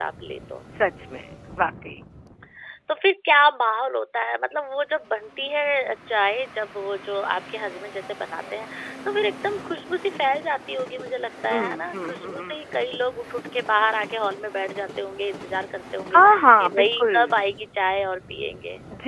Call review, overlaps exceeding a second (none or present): present